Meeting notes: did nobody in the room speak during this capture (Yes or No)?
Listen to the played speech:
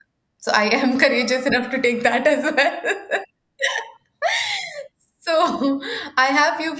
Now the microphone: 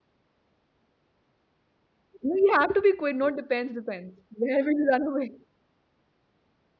No